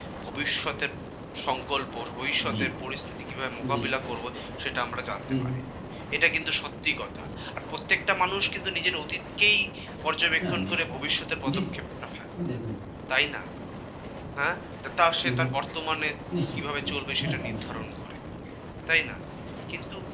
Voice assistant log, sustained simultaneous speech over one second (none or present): present